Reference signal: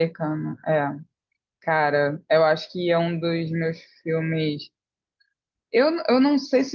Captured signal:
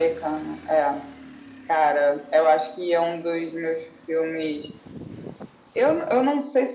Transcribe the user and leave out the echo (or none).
none